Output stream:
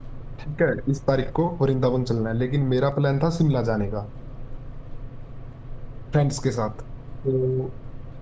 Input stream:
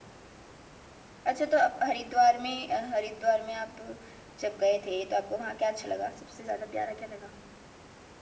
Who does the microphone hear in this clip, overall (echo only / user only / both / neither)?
user only